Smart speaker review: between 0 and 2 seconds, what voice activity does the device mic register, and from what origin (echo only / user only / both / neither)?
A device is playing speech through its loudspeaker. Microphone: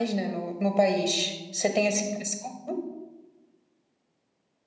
user only